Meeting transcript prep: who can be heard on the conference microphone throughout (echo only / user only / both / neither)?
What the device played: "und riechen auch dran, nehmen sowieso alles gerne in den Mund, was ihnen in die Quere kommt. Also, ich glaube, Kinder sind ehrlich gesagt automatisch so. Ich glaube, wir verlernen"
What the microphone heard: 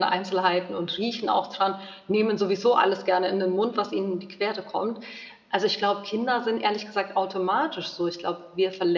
echo only